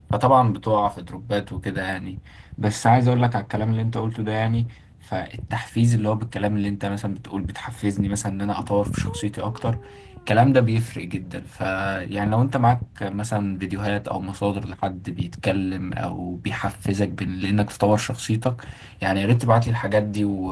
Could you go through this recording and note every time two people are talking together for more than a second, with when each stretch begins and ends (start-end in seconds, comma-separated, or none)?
none